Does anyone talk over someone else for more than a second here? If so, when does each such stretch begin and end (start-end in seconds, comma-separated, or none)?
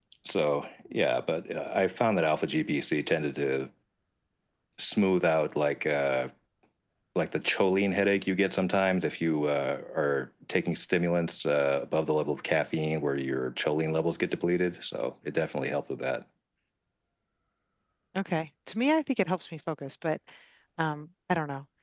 none